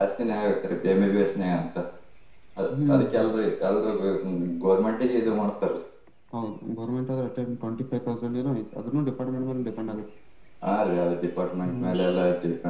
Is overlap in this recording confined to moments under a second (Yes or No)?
Yes